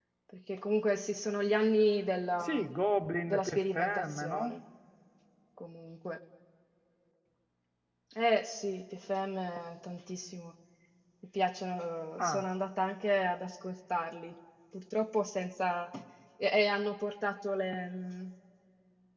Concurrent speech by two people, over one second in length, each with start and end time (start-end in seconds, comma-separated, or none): 3.3-4.5